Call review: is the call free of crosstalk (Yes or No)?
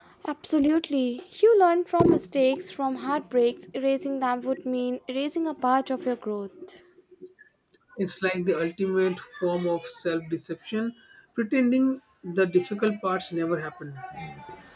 Yes